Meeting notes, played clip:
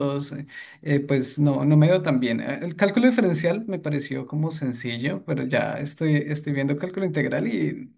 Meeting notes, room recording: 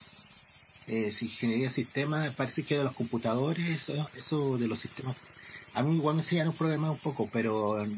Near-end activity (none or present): present